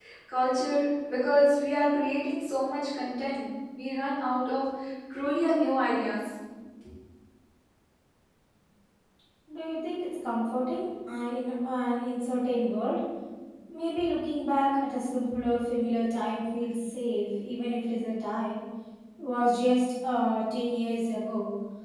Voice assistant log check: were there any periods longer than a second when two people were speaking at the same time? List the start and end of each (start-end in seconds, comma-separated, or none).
none